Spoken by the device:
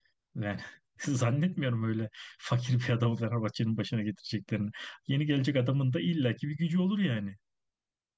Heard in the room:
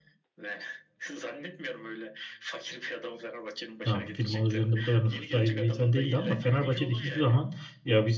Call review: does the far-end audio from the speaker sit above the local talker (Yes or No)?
No